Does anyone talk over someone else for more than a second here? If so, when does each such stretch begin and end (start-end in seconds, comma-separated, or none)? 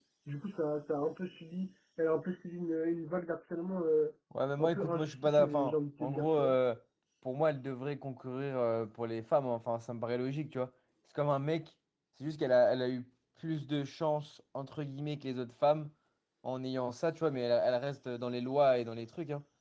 4.6-6.5